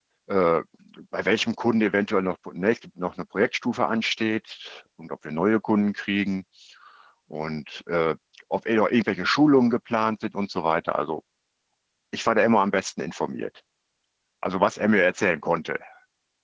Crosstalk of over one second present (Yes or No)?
No